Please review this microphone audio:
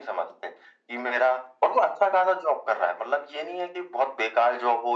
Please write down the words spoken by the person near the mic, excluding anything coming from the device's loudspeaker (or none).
none